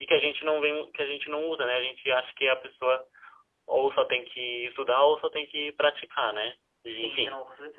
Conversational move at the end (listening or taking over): taking over